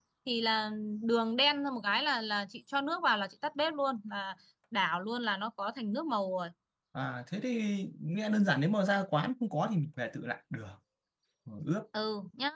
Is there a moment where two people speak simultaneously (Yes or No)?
No